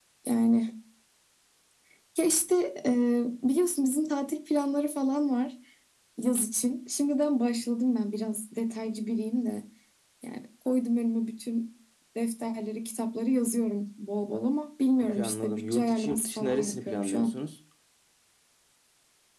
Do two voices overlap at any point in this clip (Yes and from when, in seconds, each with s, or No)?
Yes, from 15.0 s